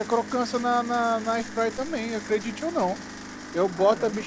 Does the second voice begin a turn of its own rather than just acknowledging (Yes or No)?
No